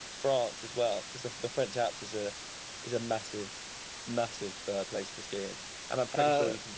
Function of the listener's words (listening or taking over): listening